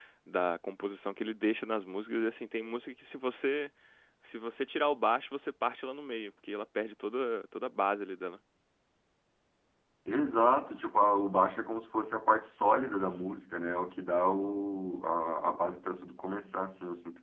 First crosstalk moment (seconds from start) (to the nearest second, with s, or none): none